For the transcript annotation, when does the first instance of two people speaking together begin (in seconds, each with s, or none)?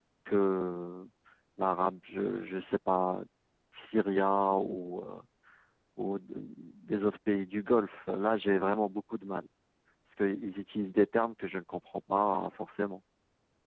none